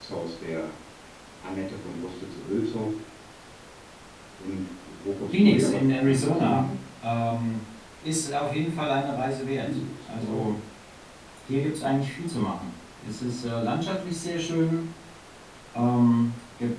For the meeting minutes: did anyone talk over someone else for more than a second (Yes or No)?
Yes